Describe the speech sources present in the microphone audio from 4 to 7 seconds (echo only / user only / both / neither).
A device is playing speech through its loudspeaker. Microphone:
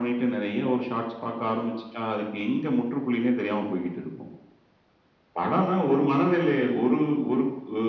echo only